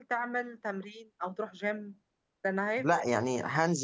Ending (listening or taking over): taking over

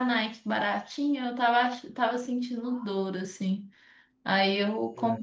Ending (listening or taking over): listening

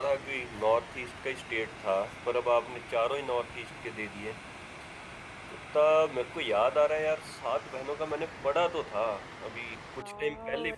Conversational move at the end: taking over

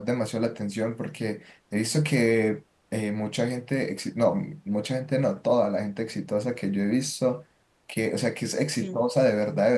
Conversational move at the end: listening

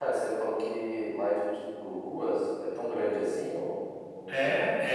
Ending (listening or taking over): taking over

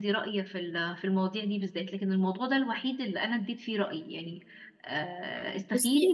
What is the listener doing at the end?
listening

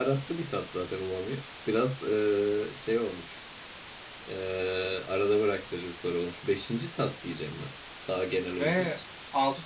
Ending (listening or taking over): taking over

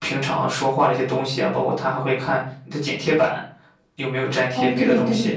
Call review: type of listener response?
taking over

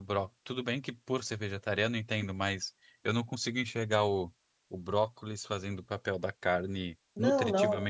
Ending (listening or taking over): taking over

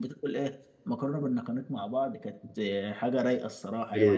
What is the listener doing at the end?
taking over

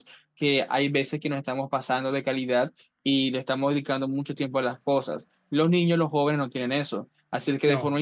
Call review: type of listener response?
listening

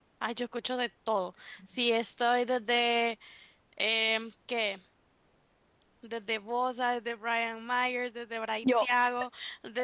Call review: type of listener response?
listening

